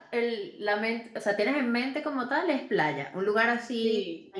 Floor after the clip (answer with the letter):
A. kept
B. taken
B